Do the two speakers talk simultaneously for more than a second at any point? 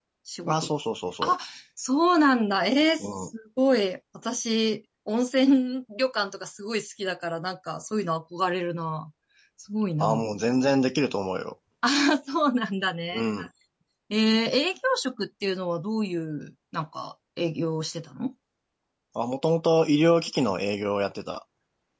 No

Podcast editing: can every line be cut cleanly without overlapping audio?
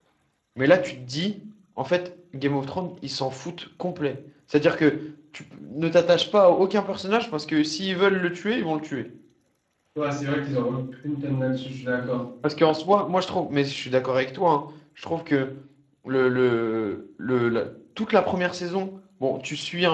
Yes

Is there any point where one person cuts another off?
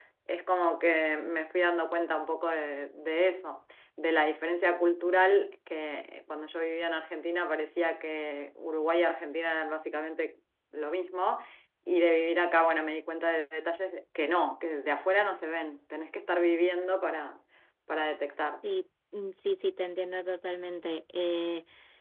No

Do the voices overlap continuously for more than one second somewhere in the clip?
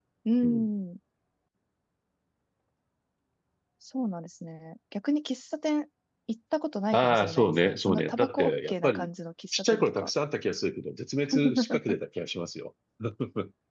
Yes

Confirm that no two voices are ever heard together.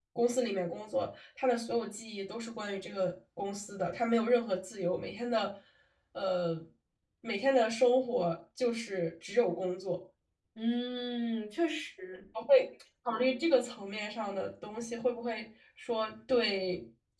Yes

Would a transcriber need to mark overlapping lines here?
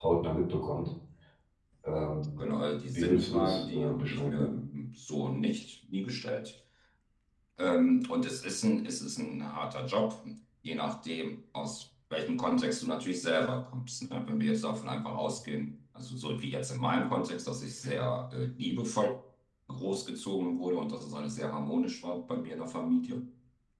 Yes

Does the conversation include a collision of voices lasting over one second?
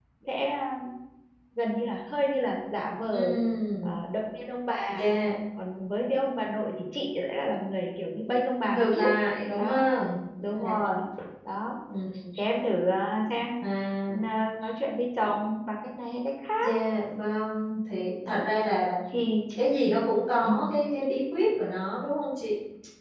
No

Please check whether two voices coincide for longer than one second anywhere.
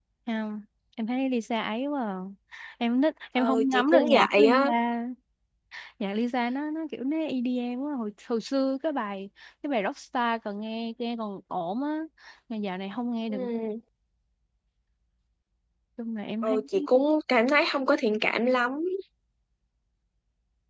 Yes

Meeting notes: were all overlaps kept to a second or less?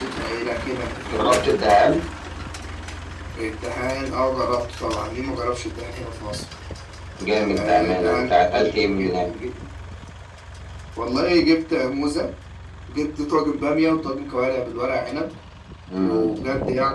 No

